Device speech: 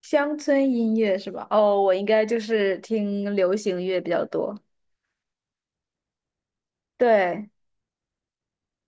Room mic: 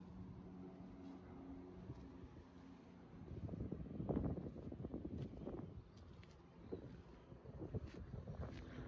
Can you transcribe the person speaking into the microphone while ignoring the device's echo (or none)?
none